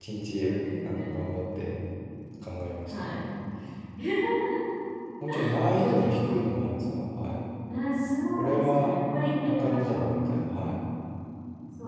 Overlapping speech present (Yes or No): Yes